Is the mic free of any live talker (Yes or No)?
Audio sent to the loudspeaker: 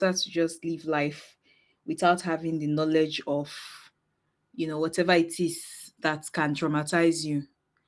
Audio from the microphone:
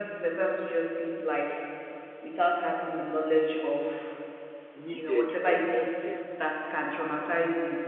No